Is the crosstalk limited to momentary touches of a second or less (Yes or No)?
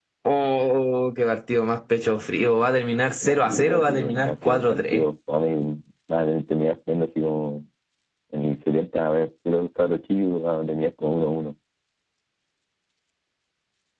No